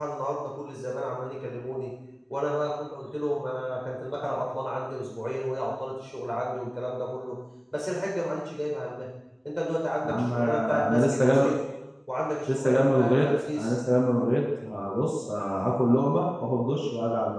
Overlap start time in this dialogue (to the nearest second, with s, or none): 10 s